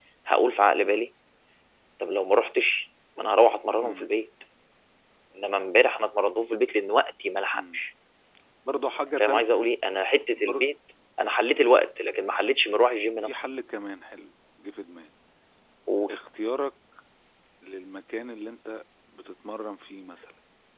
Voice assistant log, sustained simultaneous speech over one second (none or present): none